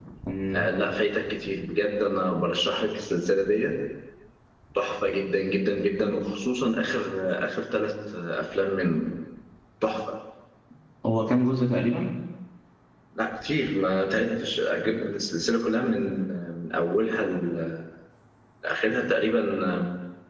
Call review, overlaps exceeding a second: none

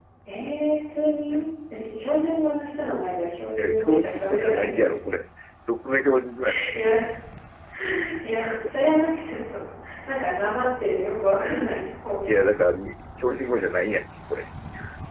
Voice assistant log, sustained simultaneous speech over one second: present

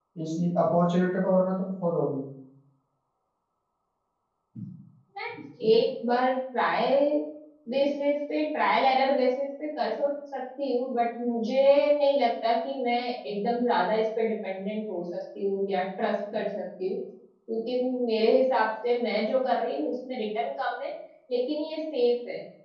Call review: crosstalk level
none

